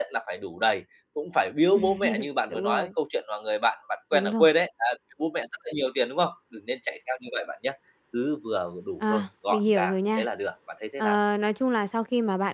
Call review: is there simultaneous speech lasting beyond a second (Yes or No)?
Yes